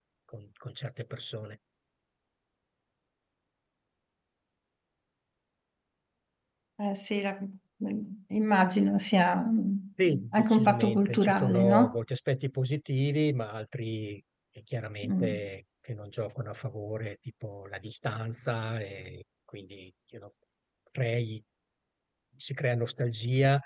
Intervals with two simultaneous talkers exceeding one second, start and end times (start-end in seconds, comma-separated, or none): 10.0-12.0